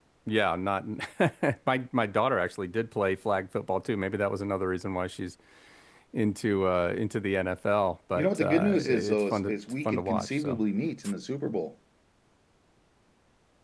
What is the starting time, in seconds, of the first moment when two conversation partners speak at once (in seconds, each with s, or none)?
8.2 s